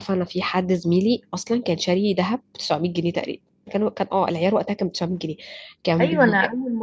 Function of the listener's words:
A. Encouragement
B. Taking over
B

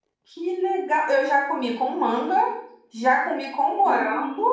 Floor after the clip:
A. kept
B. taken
B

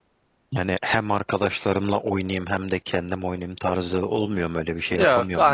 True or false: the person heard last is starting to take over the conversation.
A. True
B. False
A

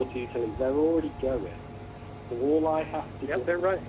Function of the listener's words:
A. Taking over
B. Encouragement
A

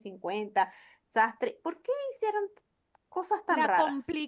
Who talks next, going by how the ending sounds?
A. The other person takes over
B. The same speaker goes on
A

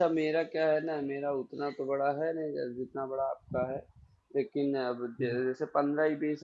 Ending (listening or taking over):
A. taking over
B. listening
B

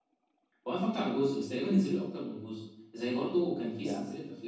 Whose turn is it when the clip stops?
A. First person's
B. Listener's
A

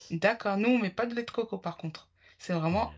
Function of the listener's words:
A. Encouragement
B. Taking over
A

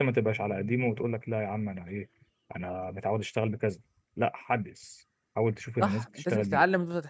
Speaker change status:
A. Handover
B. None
A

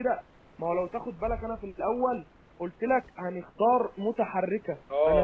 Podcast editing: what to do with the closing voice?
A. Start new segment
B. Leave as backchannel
A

